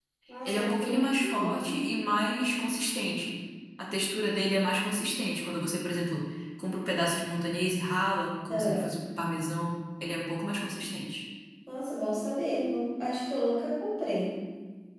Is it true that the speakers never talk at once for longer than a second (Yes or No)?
No